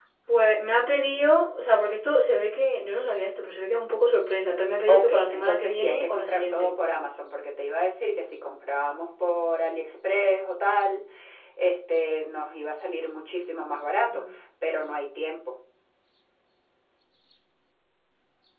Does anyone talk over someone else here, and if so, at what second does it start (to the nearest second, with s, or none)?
5 s